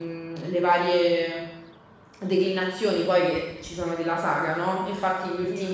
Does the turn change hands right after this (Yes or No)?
No